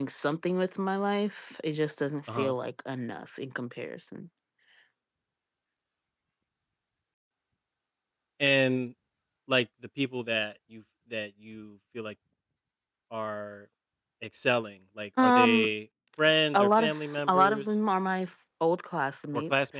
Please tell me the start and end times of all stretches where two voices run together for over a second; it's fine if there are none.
16.3-17.6

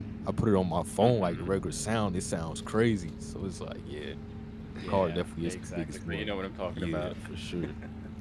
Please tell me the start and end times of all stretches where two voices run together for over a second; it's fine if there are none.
4.9-6.3

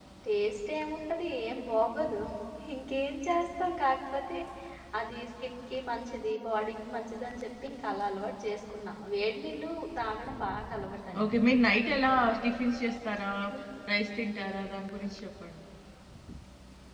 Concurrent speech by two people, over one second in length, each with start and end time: none

